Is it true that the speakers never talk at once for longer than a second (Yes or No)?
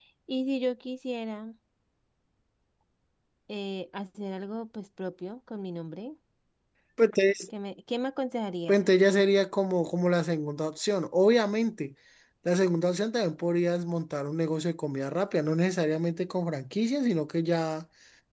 Yes